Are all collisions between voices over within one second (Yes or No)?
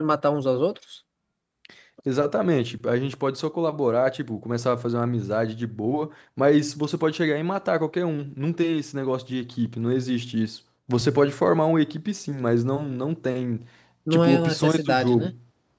No